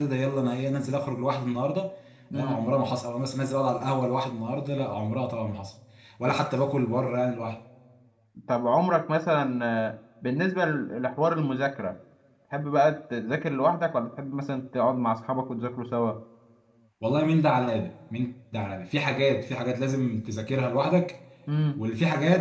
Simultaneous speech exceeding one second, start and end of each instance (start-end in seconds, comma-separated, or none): none